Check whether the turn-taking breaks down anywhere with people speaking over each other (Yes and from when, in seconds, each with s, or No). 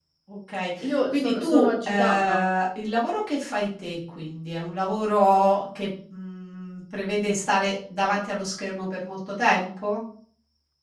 Yes, from 0.8 s